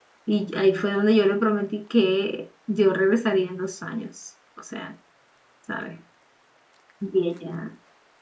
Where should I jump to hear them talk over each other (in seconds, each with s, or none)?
none